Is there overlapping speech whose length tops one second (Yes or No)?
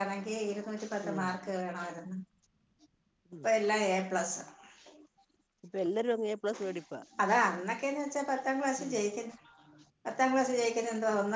No